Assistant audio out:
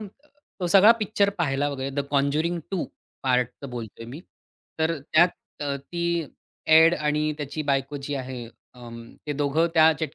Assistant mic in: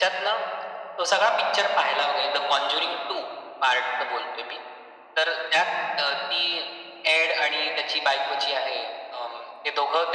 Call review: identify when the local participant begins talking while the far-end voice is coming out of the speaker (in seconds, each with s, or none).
none